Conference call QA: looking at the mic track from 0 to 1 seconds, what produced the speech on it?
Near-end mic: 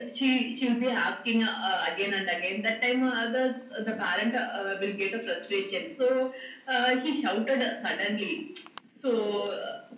echo only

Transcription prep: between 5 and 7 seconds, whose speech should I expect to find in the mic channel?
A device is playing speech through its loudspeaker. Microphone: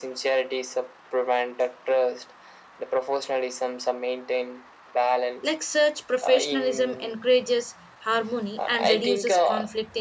both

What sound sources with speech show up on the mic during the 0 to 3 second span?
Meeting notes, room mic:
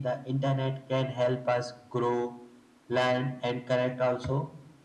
echo only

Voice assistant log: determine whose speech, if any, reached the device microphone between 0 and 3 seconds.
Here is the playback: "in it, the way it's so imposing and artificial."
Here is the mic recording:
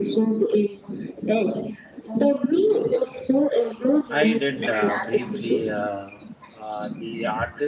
echo only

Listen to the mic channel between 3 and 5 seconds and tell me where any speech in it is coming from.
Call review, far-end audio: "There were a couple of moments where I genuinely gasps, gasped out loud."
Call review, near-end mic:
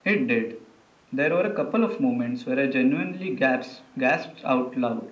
echo only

